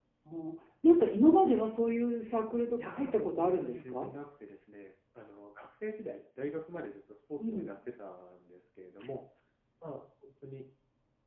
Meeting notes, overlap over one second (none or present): present